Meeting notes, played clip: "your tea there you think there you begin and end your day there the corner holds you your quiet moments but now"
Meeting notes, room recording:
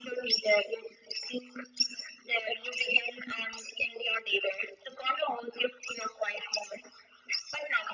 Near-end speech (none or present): none